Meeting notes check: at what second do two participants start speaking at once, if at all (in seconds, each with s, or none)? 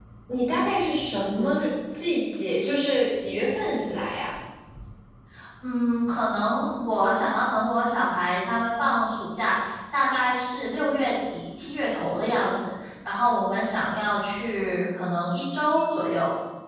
none